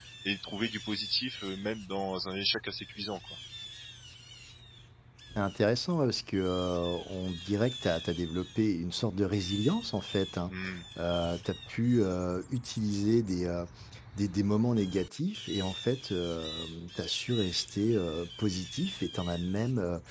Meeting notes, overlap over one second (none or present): none